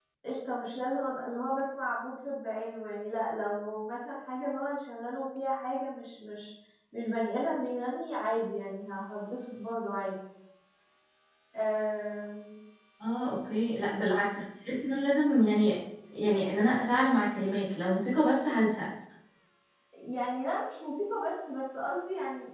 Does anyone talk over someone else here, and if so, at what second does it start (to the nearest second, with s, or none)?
none